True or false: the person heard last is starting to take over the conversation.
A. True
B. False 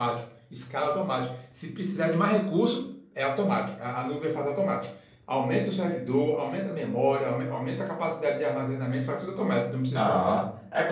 A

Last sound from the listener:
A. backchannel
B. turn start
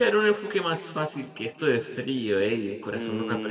B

